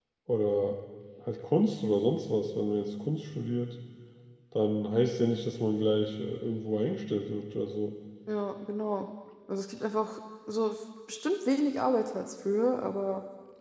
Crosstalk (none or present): none